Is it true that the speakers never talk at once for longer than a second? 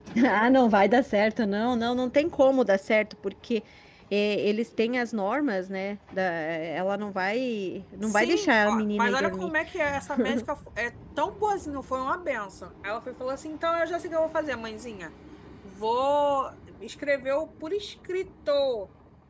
No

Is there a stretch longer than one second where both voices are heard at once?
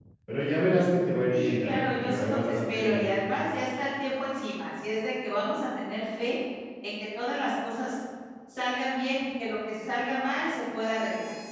Yes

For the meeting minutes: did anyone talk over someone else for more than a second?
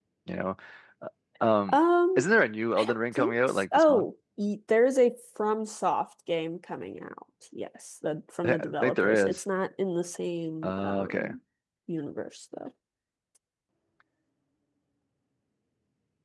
Yes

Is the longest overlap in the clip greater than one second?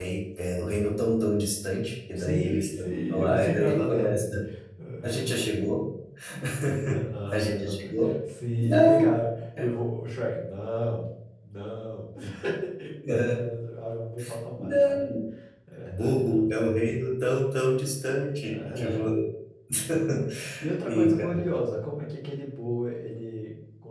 Yes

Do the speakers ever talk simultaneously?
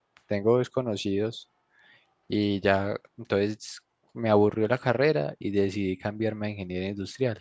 No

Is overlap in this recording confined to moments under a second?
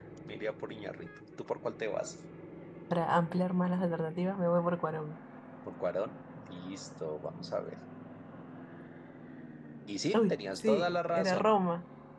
No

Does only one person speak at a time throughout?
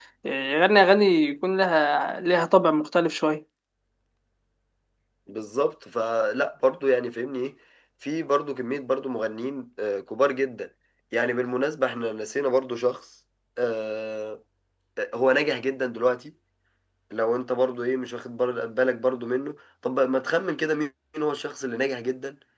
Yes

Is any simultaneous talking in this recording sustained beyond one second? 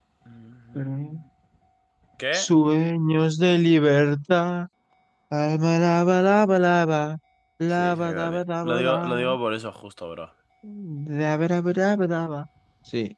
Yes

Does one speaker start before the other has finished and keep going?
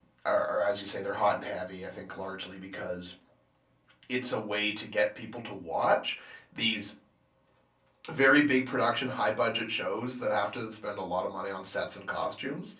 No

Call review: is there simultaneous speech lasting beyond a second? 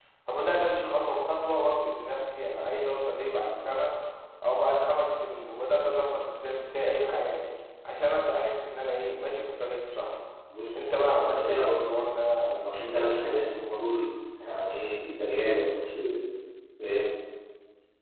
Yes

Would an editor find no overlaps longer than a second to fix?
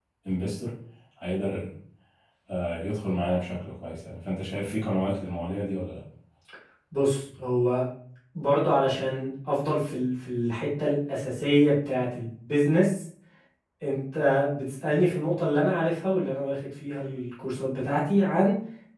Yes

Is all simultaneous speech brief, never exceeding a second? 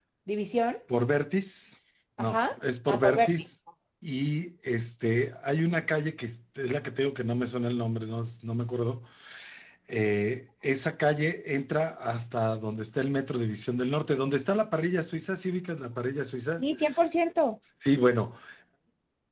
Yes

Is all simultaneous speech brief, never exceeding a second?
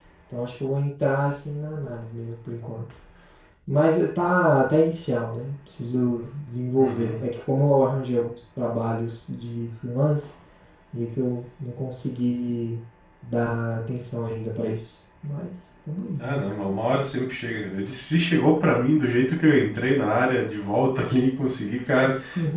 Yes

